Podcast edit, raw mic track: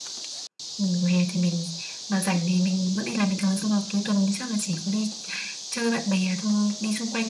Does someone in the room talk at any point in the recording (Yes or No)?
No